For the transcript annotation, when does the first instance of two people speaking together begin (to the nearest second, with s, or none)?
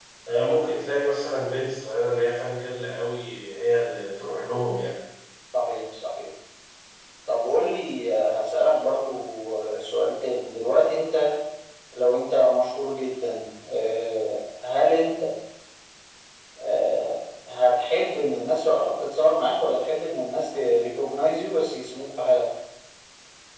none